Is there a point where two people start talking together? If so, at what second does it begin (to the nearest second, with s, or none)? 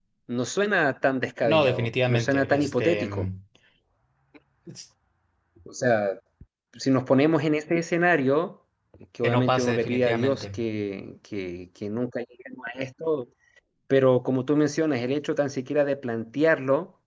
1 s